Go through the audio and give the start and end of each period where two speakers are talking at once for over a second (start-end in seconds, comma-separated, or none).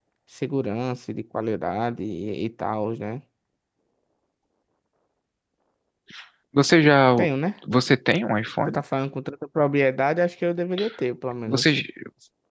none